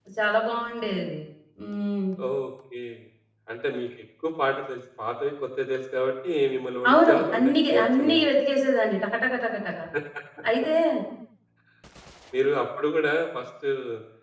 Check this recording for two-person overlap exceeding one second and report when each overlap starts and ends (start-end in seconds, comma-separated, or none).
6.9-8.3